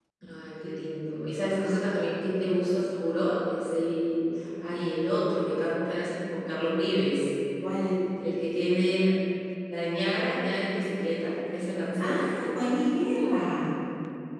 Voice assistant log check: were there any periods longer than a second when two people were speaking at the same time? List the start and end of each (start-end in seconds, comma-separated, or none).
none